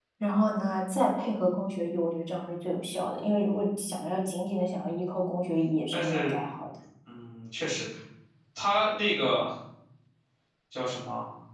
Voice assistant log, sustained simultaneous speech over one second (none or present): none